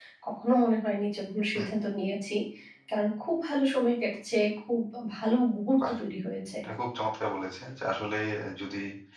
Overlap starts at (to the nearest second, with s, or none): none